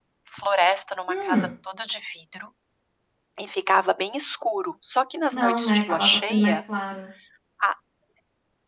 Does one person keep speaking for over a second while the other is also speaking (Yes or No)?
Yes